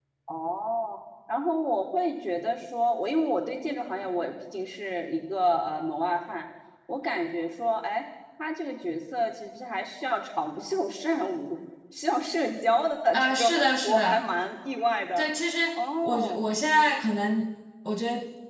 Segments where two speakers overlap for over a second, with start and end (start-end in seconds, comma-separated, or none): 13.1-14.3